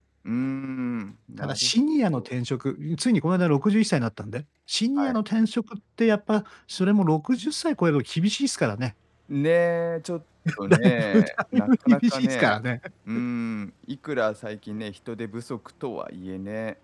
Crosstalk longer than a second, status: present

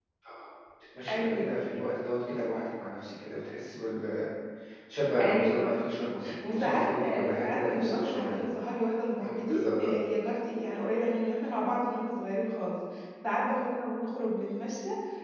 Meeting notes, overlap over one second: present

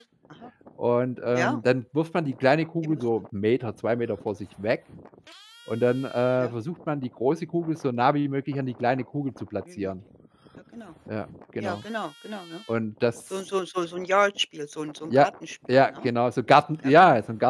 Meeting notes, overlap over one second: none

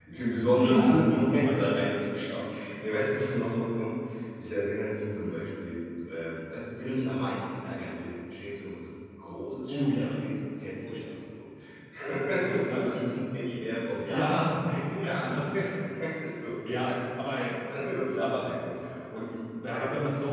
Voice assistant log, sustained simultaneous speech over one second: present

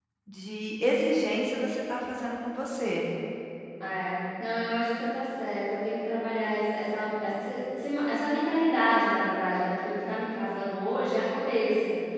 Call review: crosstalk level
none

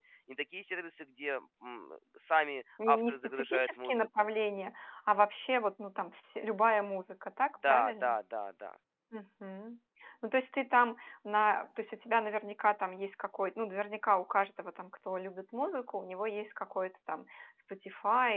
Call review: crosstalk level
present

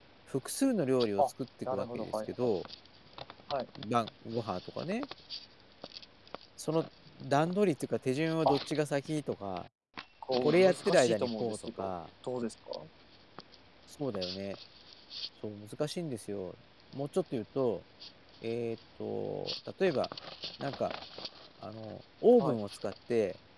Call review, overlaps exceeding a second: present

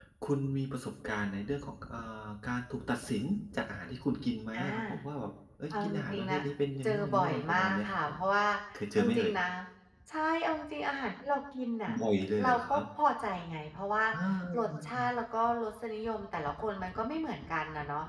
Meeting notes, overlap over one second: present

